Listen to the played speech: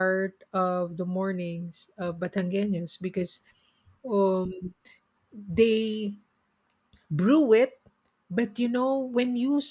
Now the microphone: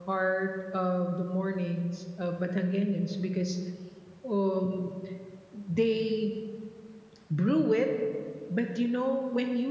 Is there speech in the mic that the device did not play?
No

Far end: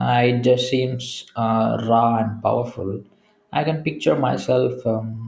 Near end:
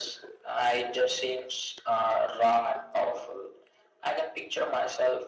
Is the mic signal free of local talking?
Yes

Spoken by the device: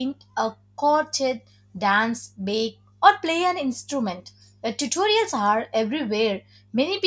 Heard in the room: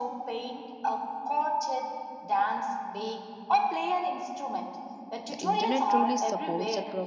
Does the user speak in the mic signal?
Yes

